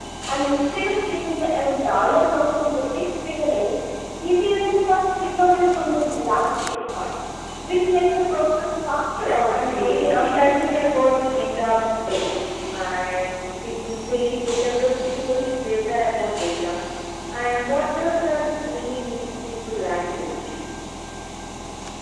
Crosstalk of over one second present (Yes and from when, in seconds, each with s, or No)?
Yes, from 9.3 s